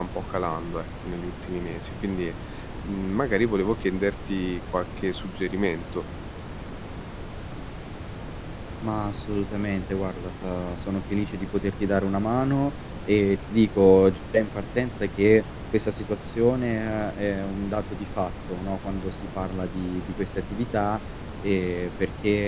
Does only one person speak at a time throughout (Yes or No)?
Yes